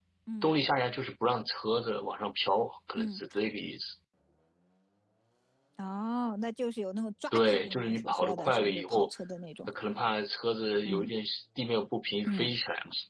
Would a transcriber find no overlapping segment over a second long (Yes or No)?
No